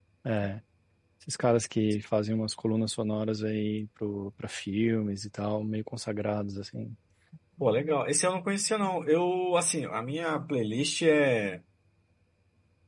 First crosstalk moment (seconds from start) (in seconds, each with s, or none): none